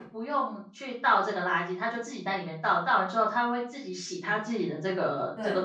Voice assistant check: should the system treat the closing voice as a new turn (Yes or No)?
Yes